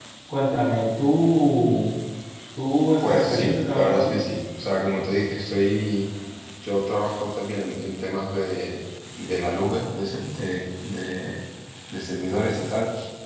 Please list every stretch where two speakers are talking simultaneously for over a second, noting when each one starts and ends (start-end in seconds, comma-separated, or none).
3.0-4.2